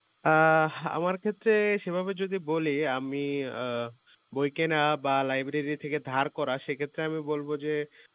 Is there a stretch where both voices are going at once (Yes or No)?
No